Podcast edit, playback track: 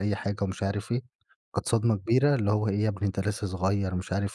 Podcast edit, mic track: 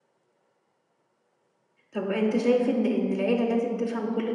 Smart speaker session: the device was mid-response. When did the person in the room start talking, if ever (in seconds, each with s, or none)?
1.9 s